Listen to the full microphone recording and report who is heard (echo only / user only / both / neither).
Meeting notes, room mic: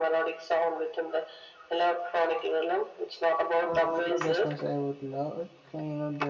both